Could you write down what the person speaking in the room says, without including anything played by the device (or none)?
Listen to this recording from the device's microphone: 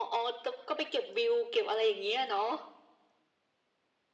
none